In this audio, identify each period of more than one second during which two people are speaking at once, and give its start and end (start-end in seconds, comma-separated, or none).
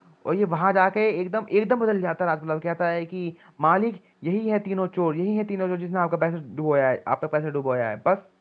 none